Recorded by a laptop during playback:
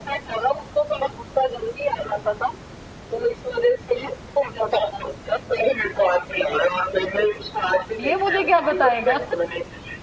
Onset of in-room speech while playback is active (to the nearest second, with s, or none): 8 s